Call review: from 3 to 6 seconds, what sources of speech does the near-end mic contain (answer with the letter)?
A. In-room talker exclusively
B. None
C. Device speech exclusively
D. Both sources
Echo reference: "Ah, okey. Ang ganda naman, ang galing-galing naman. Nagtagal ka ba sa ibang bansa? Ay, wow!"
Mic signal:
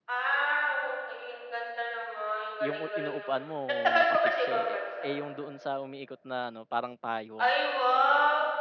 D